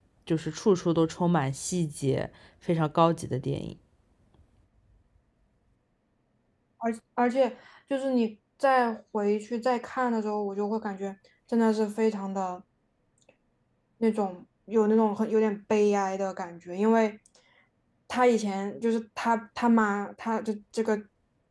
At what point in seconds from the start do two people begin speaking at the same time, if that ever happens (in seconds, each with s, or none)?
none